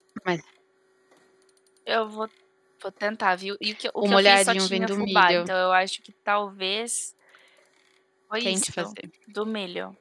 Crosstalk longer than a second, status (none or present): present